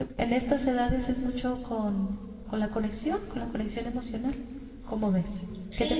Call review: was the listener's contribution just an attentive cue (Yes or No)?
No